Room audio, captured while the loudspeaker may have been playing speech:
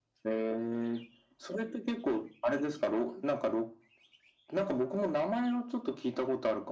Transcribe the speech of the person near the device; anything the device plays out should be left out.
none

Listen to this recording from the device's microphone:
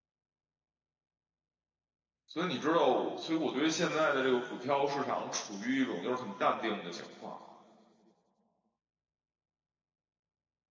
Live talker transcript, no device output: 所以你知道我所以我对现在的这个股票市场处于一种就是很淡定的情况，

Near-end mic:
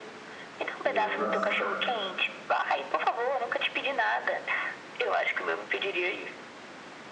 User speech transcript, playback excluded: Nossa,

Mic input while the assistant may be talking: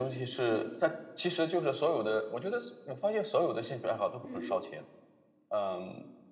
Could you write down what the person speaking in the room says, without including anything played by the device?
嗯，

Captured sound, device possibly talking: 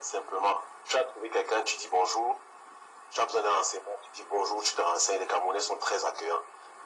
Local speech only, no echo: none

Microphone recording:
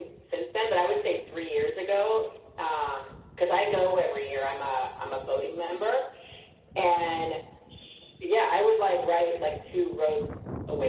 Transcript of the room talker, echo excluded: none

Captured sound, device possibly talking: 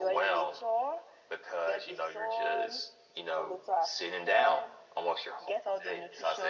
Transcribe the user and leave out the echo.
none

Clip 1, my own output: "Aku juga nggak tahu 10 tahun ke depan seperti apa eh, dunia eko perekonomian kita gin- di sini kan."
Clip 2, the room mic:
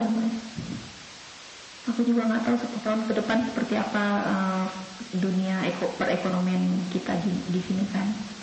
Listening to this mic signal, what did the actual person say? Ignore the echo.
none

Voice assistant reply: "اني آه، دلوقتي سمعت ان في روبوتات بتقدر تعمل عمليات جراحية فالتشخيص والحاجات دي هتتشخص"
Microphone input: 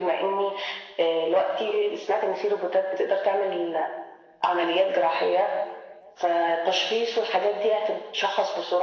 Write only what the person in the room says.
none

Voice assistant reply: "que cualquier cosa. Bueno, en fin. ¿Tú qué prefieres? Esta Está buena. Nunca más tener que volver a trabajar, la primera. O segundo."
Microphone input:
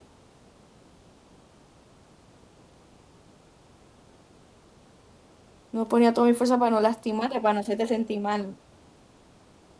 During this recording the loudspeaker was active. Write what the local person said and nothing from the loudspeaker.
No ponía toda mi fuerza para no lastimarte, para no hacerte sentir mal.

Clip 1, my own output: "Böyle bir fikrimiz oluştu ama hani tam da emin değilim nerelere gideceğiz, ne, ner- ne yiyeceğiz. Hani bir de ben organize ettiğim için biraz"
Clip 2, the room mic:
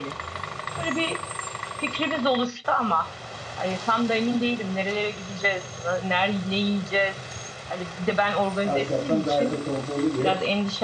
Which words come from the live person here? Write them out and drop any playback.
Ahşaptan gayet de konforlu bir ev.

